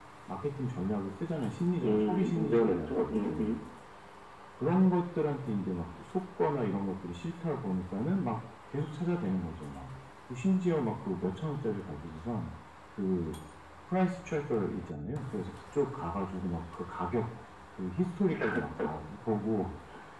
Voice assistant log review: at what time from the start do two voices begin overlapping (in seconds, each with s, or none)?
1.8 s